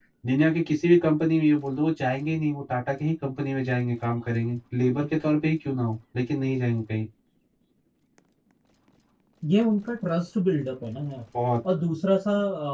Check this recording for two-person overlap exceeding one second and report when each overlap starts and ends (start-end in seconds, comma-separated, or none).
none